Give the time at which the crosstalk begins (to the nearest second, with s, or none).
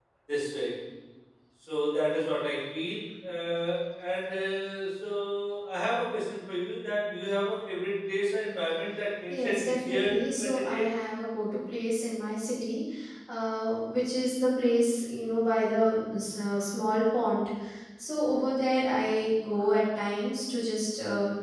9 s